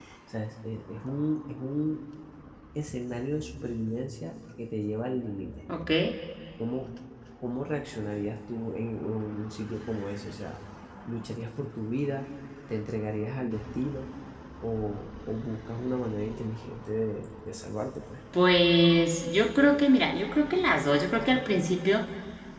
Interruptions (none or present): none